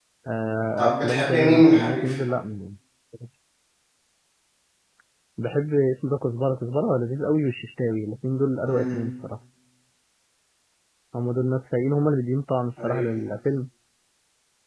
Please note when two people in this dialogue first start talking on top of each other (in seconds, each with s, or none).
0.8 s